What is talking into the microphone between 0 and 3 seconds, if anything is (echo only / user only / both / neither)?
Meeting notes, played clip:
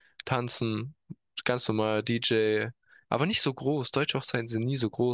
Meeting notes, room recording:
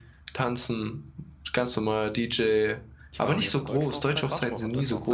echo only